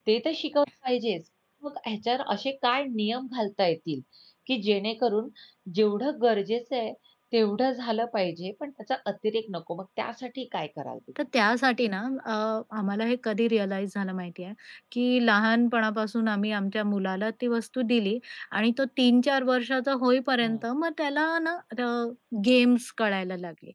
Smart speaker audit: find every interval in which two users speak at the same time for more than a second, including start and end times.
none

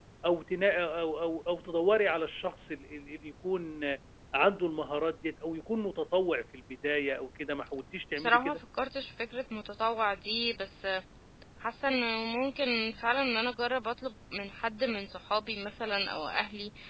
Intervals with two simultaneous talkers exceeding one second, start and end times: none

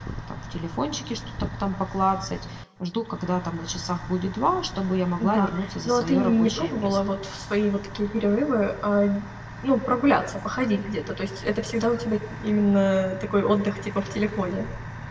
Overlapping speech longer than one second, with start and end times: 5.2-7.0

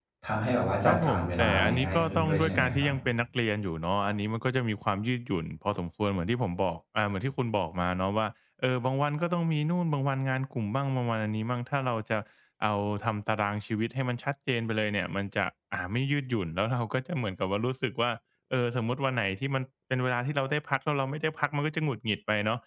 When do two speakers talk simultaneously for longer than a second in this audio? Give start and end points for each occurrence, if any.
0.8-2.9

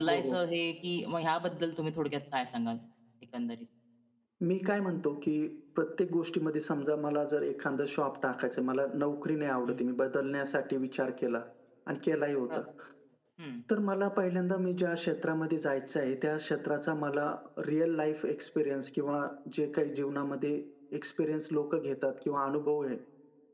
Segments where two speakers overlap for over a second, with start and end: none

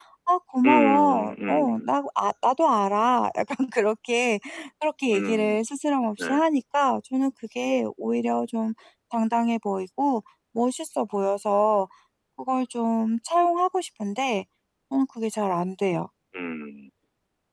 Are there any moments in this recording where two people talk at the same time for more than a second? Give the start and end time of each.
0.7-1.9

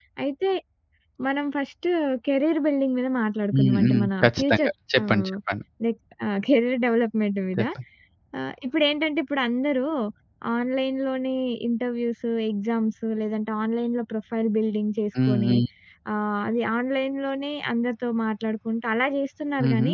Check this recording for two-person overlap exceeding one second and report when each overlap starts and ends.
3.5-5.3

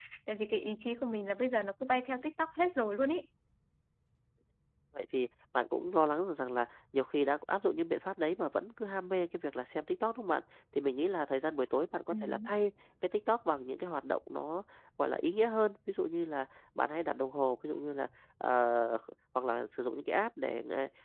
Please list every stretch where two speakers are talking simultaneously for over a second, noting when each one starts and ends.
none

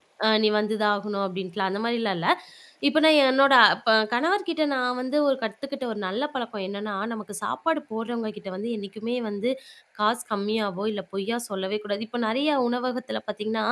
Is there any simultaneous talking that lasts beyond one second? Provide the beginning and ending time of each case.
none

